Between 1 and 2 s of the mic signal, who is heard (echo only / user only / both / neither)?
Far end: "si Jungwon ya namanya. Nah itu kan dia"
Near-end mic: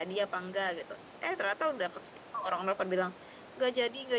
user only